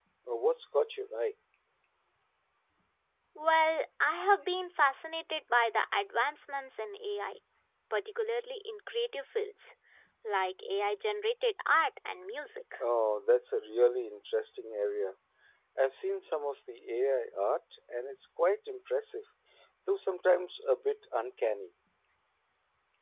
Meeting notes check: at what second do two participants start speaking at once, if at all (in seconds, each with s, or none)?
none